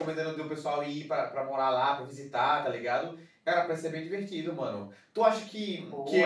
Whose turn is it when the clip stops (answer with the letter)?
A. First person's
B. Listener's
A